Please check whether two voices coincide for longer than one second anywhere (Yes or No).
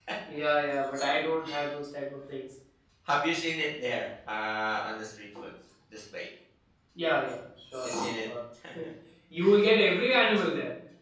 No